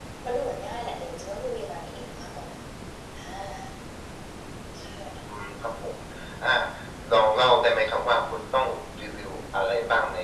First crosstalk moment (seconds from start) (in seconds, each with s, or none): none